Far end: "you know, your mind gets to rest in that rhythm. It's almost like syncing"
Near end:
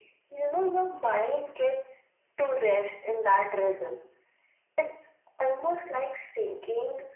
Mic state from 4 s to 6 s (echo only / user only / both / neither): echo only